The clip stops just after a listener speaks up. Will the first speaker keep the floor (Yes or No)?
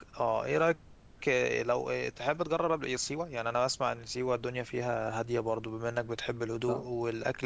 Yes